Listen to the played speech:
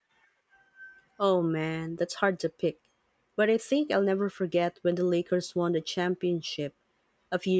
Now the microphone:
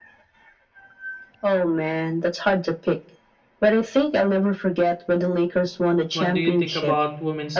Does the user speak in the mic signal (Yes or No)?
Yes